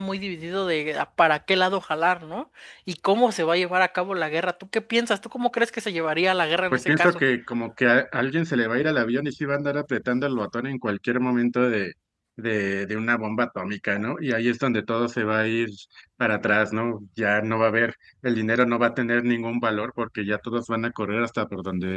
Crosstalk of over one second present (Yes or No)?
No